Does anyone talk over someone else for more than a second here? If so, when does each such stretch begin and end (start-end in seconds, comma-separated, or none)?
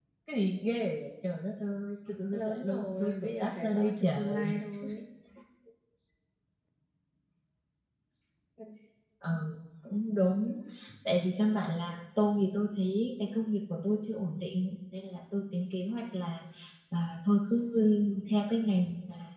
2.3-4.5